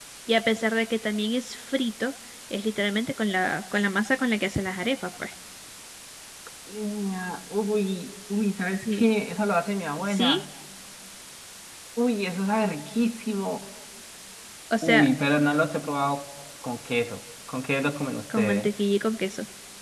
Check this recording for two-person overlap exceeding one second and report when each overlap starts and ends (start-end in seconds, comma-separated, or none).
none